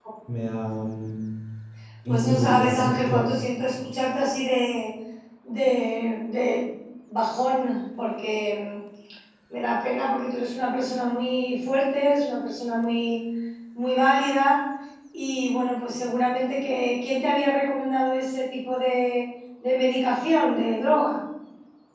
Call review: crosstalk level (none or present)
present